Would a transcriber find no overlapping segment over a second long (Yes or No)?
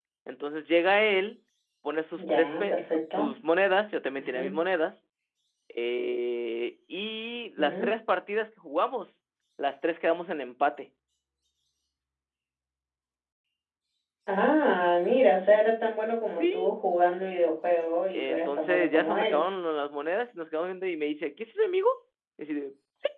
No